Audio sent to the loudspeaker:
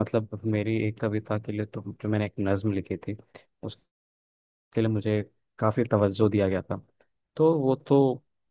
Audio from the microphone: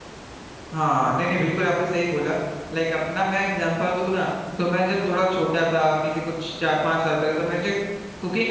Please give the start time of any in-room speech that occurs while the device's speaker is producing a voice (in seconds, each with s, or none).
0.7 s